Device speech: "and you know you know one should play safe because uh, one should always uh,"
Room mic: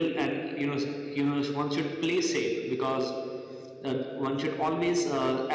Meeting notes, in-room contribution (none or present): none